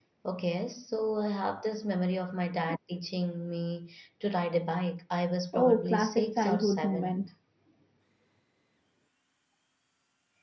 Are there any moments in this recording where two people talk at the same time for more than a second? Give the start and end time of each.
5.5-7.2

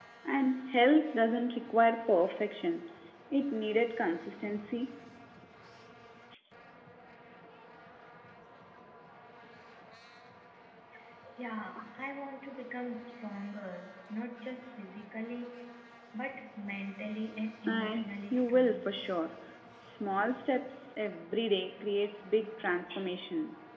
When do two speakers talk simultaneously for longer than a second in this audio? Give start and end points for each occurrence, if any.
17.7-18.9

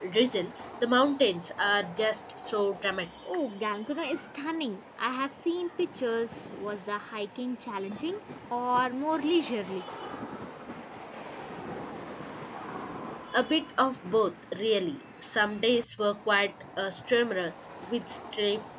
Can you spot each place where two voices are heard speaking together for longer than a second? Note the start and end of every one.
none

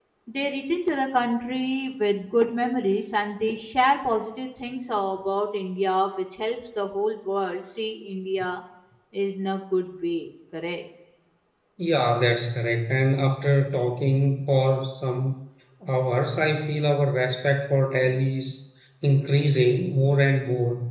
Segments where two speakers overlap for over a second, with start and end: none

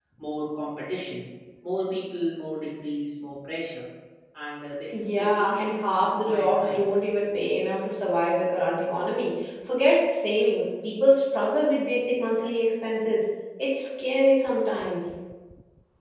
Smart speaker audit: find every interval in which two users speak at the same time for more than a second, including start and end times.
5.0-6.8

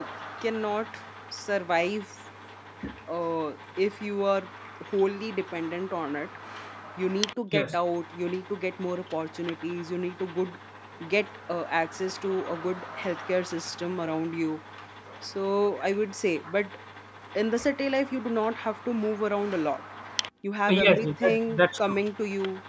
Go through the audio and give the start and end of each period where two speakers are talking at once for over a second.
20.7-22.0

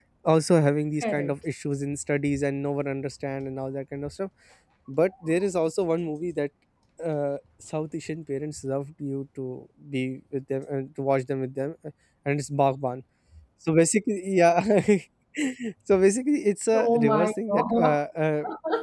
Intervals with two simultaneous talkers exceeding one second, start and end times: 16.7-18.0

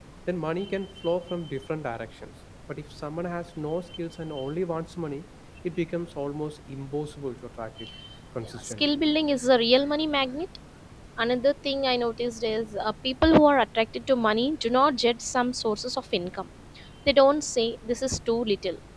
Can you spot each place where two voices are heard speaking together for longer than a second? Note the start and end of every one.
none

